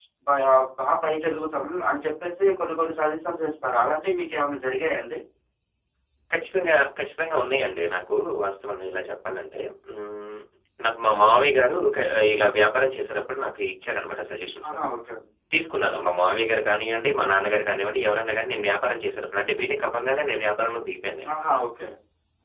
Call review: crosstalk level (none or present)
none